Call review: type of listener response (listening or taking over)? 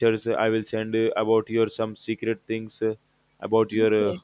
listening